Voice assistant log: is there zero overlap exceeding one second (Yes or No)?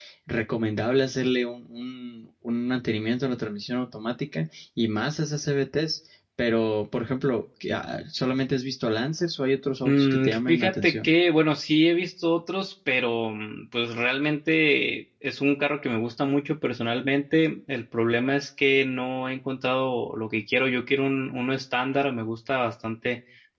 No